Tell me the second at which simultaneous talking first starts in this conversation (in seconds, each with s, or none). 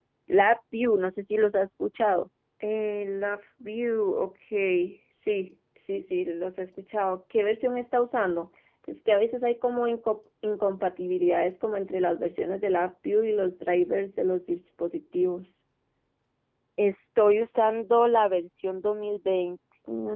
none